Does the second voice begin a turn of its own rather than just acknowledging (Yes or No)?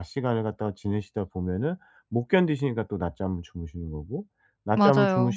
No